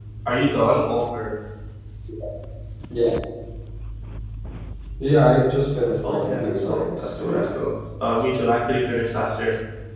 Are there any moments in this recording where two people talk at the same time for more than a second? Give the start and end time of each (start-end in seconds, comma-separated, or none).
6.0-7.4